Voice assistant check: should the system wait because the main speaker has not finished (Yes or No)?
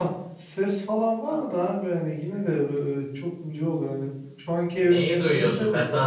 No